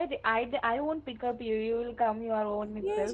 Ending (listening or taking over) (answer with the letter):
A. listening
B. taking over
B